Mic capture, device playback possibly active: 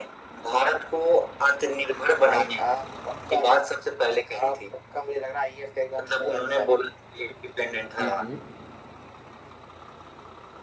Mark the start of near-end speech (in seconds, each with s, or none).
8.0 s